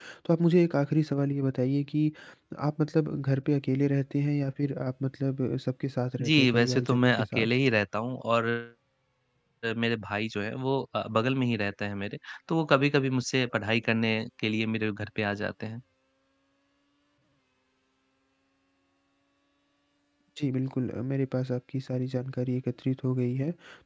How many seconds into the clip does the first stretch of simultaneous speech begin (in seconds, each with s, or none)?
6.2 s